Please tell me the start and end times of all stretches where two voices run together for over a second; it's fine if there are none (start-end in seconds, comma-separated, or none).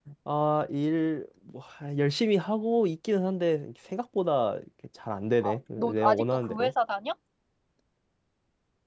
5.4-6.7